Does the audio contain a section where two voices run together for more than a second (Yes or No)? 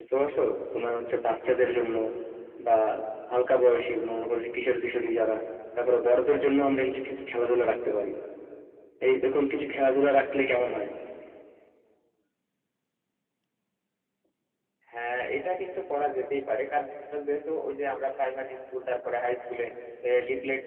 No